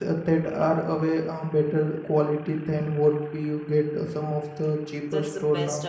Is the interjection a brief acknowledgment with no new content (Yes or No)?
No